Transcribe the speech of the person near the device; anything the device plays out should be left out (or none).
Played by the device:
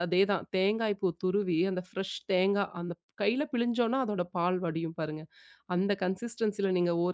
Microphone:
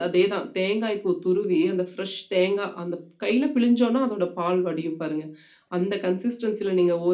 none